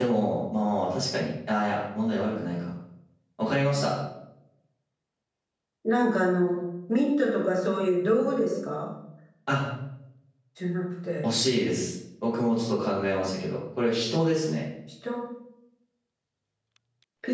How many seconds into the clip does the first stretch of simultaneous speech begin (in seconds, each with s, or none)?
none